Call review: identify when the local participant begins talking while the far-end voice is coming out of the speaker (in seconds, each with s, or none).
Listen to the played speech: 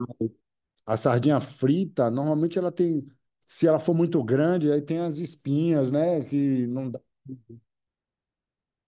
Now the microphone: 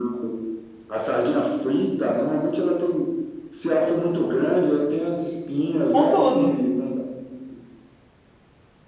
5.9 s